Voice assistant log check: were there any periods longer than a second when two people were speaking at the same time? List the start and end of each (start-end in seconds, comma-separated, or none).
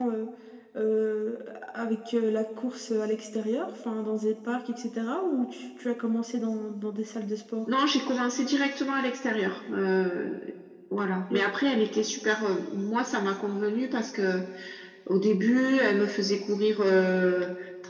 none